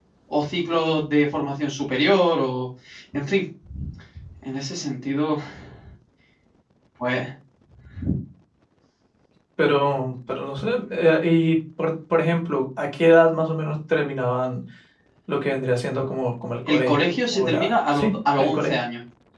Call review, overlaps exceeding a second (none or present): present